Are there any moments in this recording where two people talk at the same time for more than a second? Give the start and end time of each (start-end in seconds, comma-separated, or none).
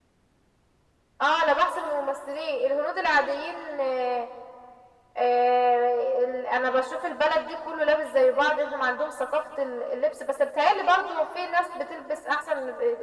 none